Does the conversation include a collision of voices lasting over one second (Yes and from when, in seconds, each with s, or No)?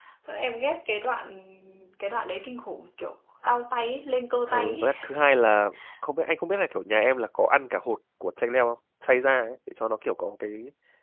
No